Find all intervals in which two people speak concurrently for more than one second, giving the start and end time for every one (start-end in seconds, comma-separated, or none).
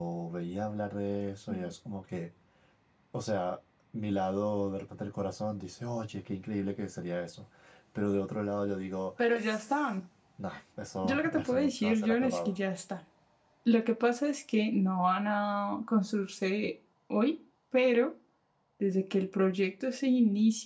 11.0-12.6